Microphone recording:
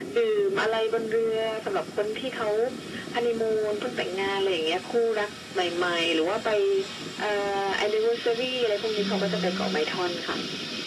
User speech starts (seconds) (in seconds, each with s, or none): 9.0 s